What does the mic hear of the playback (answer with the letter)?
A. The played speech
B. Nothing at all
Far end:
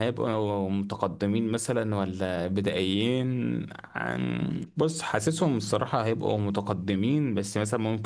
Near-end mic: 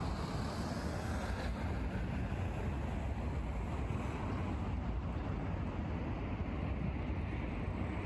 B